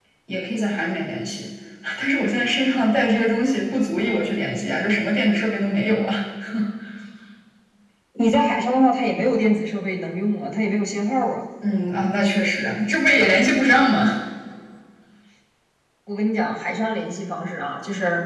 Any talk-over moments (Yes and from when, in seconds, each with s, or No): No